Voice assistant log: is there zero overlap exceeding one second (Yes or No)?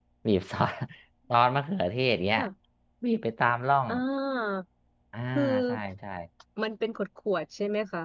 Yes